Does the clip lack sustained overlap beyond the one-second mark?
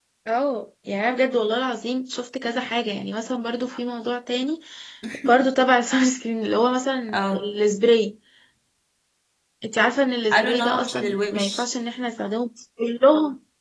No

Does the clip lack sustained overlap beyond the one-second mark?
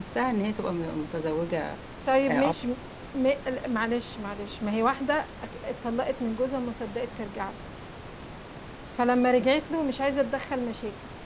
Yes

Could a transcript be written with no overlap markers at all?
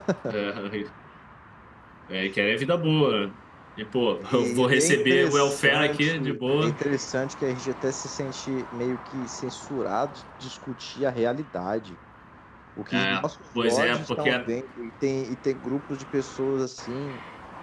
No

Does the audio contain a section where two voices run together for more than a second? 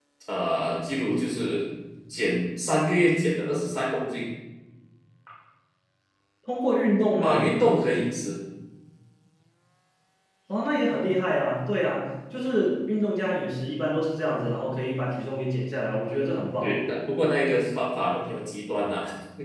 No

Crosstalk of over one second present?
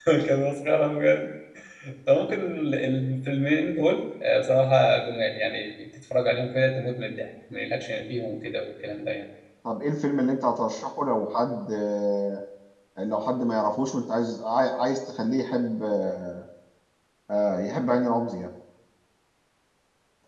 No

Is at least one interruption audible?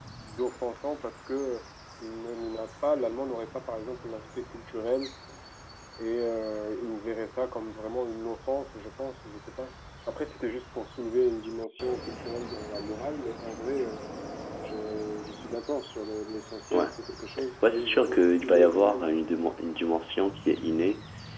Yes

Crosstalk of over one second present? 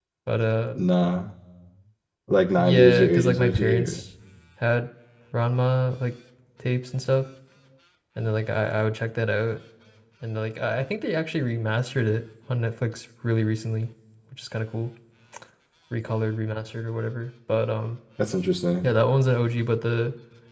Yes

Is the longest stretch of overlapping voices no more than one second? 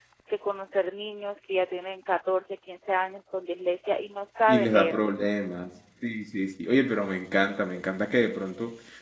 Yes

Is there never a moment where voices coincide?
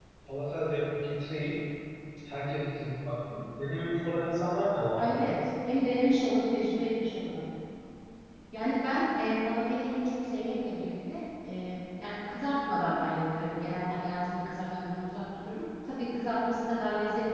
Yes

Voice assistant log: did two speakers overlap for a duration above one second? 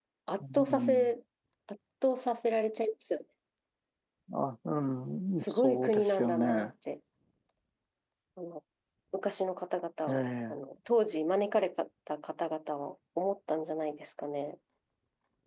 Yes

